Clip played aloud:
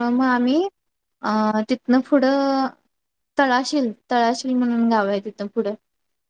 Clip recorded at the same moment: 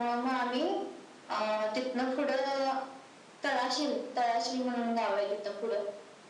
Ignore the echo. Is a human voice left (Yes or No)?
No